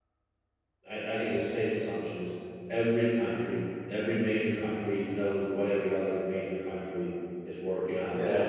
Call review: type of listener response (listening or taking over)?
taking over